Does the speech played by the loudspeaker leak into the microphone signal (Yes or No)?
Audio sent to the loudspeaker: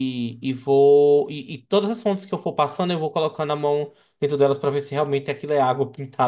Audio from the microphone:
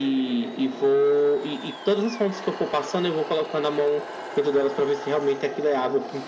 Yes